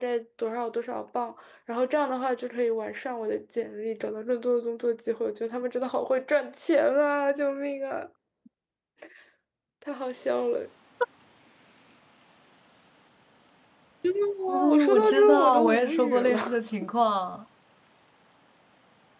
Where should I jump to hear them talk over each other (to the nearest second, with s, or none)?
14 s